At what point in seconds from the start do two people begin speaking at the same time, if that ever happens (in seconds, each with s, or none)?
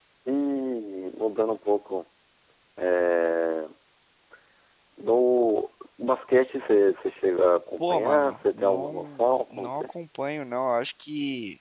7.8 s